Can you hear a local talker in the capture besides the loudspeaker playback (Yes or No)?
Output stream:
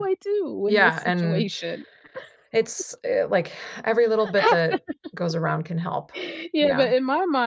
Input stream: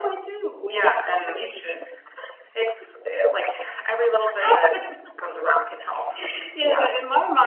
No